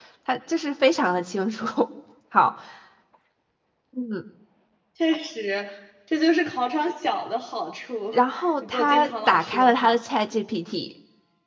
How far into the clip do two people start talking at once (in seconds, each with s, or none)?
8.7 s